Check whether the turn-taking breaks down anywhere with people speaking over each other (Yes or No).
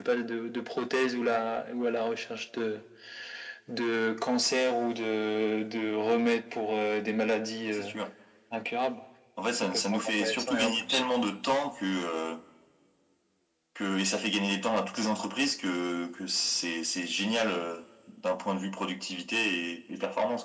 Yes